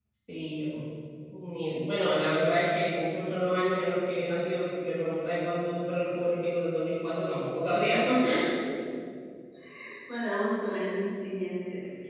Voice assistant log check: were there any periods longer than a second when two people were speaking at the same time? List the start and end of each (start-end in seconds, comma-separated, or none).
none